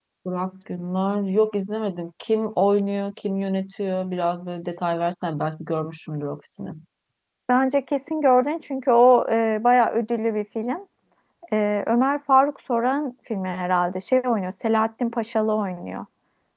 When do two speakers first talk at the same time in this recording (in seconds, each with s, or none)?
none